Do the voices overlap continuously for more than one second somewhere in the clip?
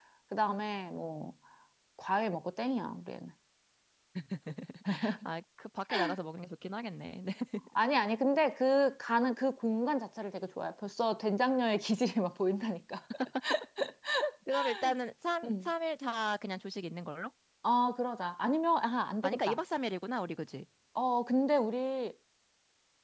No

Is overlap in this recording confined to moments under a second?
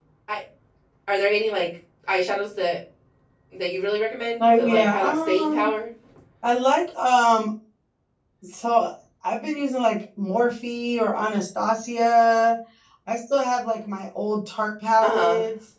No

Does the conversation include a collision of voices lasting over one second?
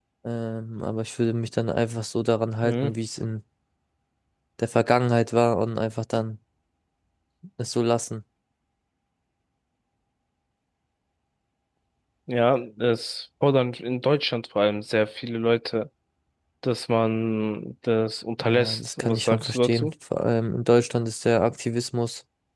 Yes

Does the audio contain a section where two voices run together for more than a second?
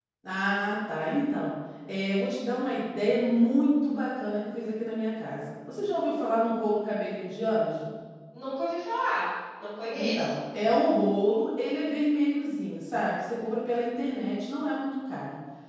No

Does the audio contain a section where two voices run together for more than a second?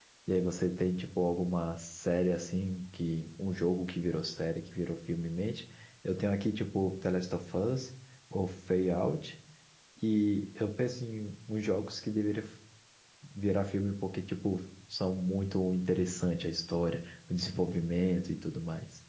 No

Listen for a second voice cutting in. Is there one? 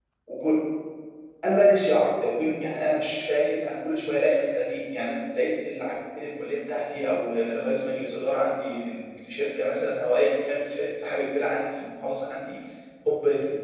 No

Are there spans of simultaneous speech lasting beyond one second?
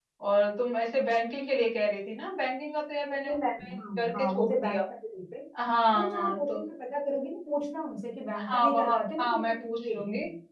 Yes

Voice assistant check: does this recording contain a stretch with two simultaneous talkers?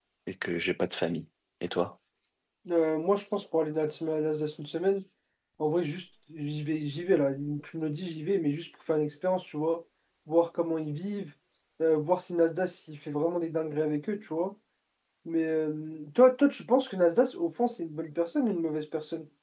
No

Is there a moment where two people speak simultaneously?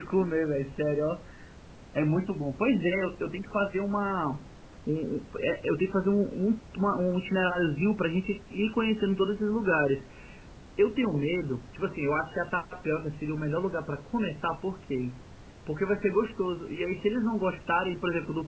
No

